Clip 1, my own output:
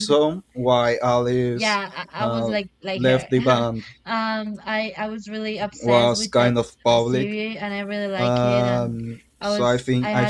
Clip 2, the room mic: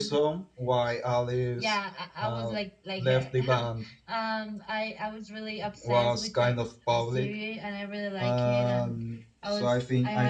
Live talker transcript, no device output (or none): none